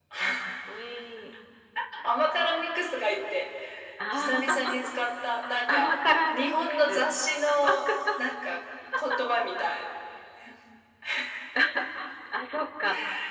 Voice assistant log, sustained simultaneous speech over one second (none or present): present